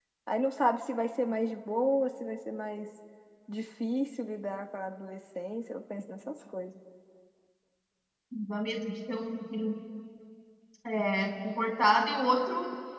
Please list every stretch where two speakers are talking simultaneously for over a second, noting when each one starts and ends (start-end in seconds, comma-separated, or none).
none